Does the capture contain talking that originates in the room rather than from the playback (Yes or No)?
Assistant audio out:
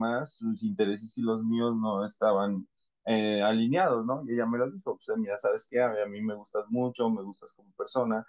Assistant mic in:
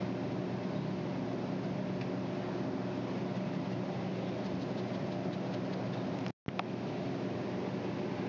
No